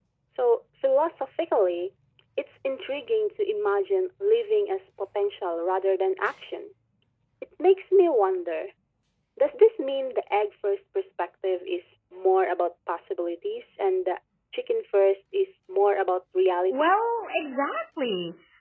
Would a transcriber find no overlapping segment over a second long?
Yes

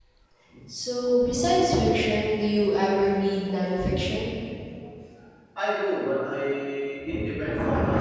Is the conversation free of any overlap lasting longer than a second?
Yes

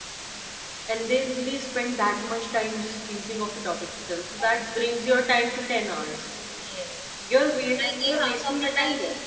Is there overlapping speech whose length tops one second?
Yes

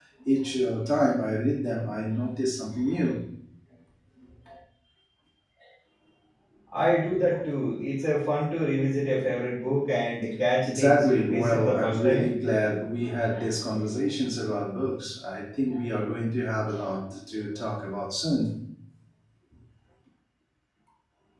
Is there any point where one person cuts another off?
Yes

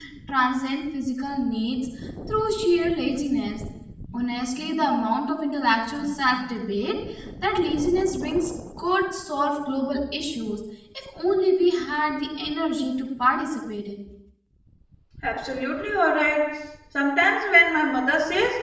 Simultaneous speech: No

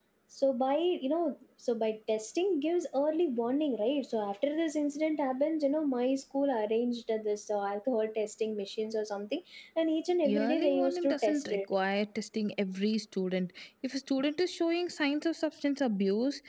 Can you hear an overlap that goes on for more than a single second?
Yes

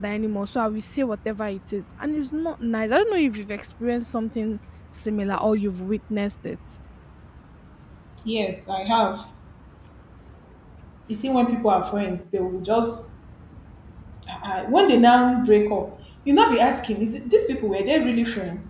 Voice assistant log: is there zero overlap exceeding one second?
Yes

